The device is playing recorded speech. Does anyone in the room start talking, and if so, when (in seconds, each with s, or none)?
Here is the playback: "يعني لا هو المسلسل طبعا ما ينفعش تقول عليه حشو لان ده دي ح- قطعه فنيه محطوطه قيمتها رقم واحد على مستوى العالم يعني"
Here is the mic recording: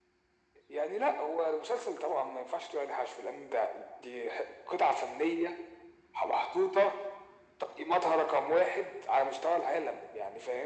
none